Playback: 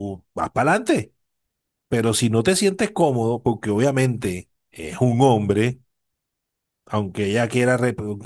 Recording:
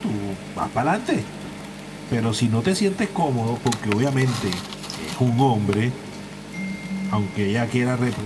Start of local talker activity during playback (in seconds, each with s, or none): none